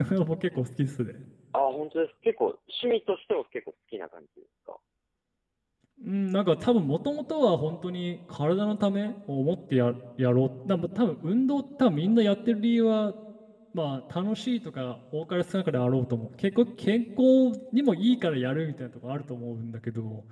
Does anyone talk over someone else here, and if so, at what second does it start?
none

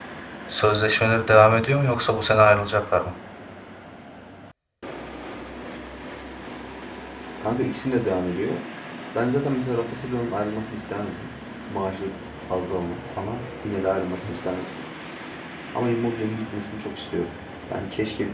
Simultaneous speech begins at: none

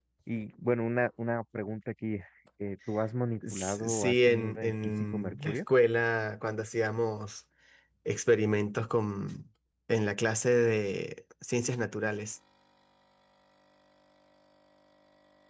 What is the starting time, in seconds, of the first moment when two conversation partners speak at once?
3 s

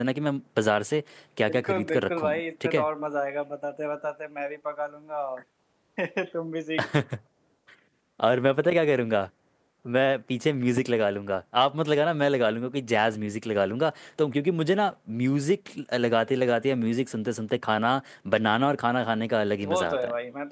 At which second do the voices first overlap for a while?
1 s

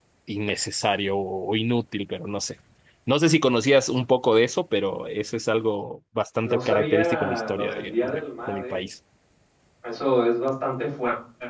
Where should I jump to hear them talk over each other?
6 s

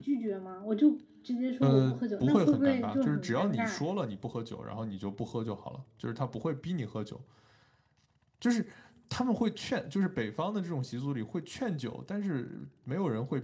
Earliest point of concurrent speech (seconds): 2 s

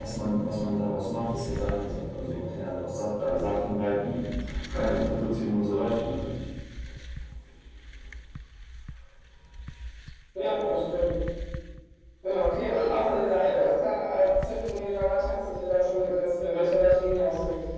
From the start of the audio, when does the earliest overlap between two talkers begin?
none

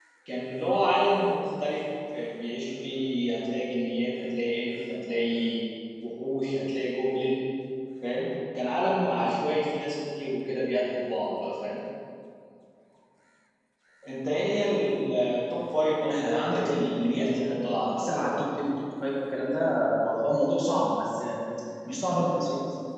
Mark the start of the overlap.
16 s

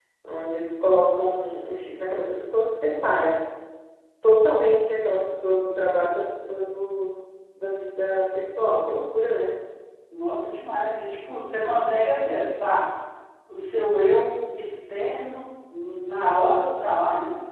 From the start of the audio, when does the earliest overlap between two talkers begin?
none

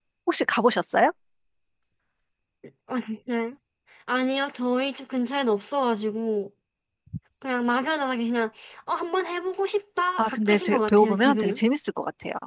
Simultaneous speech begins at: 10 s

